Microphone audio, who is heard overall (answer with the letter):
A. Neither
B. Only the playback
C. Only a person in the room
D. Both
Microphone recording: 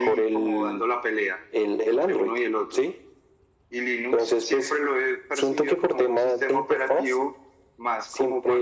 B